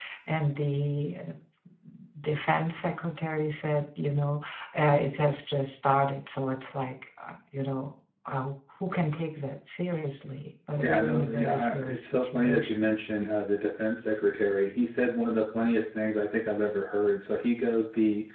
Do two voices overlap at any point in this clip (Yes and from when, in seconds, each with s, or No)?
Yes, from 10.8 s